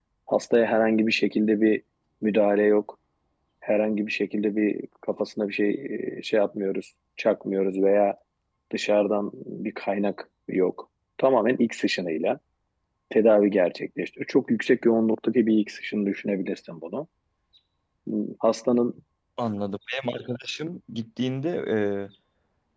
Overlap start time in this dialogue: none

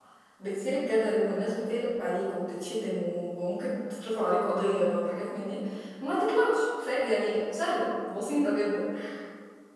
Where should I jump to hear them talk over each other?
none

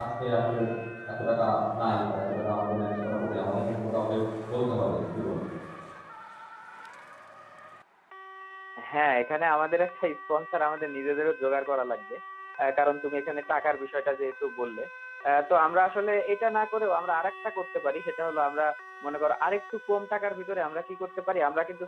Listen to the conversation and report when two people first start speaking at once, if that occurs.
none

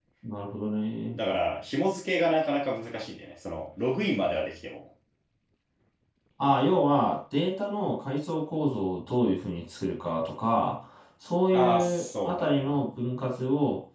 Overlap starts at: 11.5 s

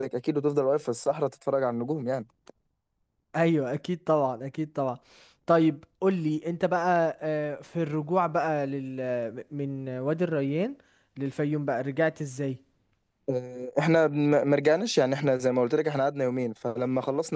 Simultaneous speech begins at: none

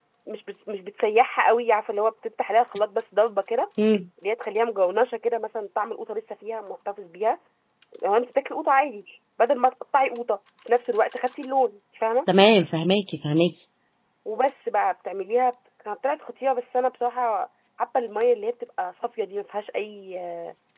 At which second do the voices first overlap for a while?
none

